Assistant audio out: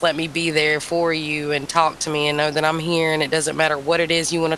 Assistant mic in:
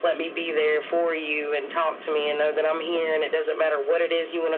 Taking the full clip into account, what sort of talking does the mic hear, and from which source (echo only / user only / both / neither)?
echo only